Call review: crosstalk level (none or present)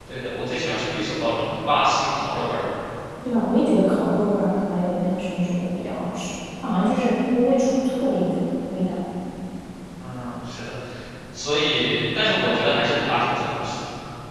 none